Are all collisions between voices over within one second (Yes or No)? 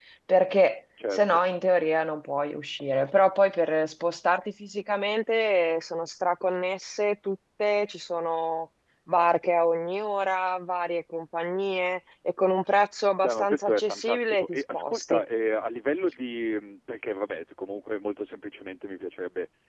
No